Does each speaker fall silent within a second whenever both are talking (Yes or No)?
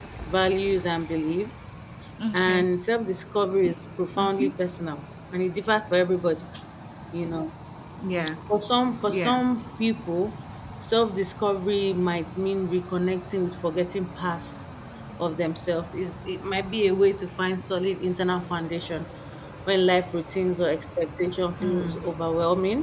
Yes